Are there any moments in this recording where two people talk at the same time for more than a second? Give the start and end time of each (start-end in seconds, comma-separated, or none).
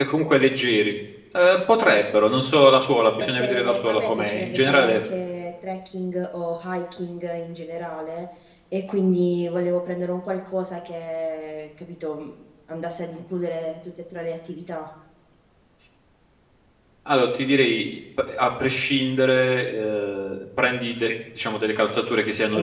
3.2-5.0